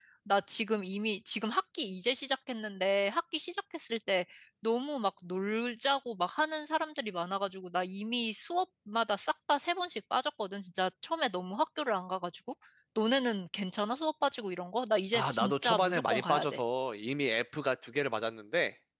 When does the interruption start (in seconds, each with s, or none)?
15.1 s